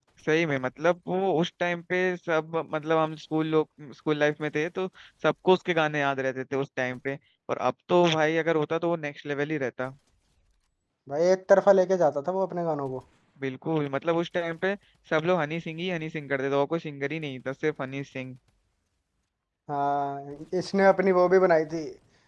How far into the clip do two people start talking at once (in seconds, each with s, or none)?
none